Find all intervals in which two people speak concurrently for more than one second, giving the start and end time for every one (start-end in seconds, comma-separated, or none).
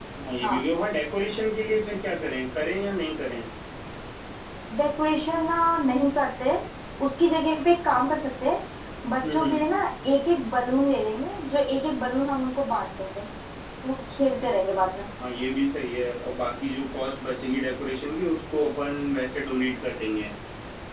none